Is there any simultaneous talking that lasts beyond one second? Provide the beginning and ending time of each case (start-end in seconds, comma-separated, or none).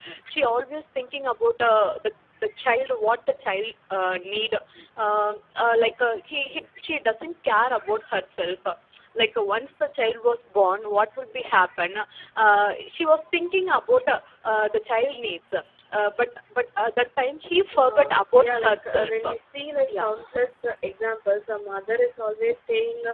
17.8-19.2